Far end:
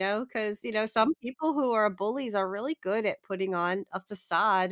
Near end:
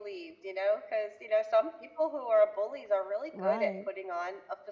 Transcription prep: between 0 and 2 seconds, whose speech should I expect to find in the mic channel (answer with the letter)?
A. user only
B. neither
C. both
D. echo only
D